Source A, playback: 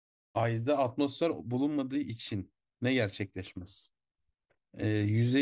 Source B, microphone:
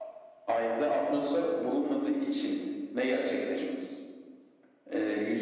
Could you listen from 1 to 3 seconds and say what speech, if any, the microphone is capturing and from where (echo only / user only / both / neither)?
echo only